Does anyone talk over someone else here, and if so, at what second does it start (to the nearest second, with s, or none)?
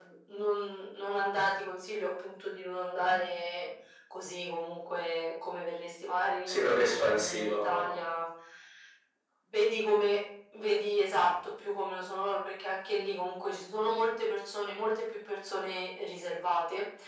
6 s